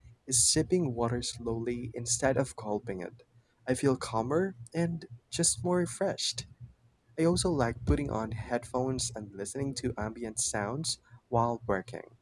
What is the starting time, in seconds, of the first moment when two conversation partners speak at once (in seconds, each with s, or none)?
none